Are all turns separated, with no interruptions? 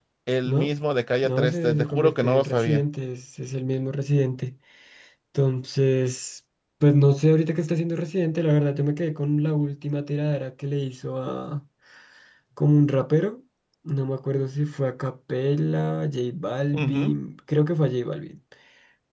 No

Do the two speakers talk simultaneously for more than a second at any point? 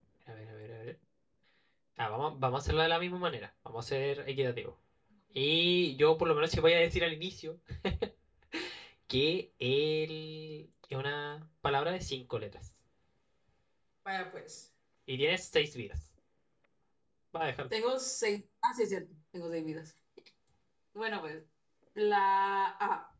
No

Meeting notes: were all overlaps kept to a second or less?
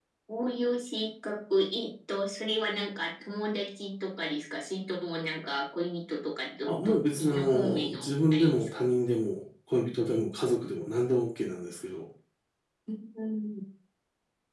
No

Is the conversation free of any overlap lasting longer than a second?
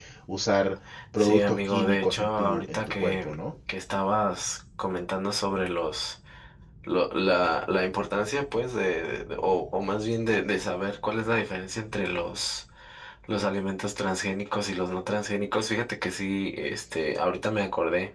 No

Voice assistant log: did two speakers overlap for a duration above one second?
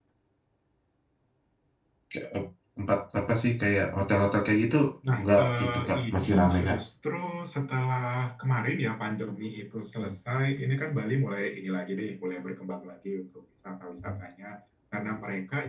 Yes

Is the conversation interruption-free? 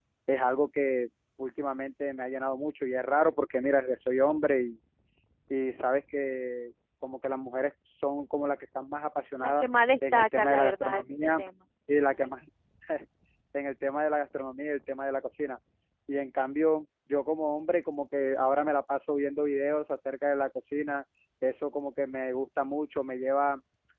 No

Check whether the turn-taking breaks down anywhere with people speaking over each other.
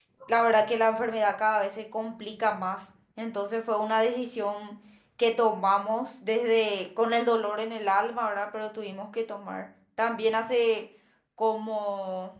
No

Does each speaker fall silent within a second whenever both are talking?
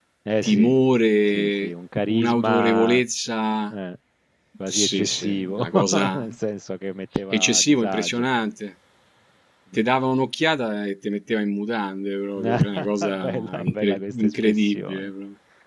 No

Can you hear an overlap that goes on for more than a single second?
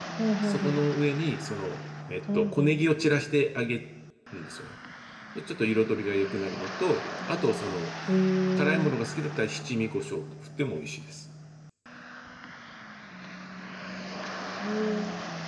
No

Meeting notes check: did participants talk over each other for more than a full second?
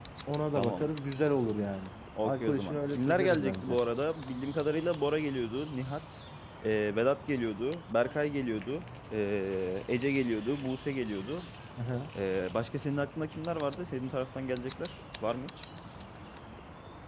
Yes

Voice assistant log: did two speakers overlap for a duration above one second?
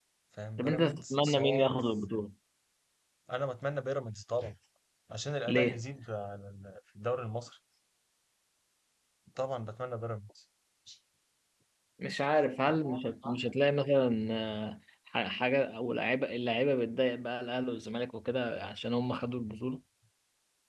Yes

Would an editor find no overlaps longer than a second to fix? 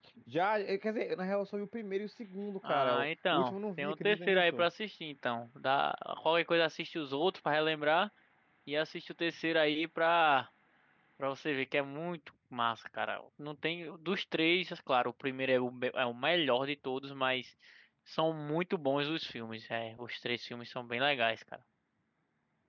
No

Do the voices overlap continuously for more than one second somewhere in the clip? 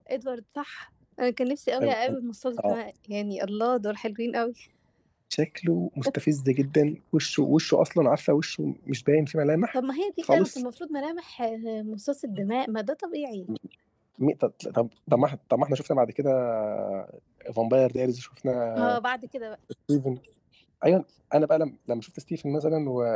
No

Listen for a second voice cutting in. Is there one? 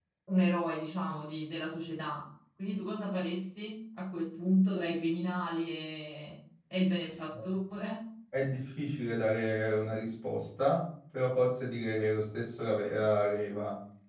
No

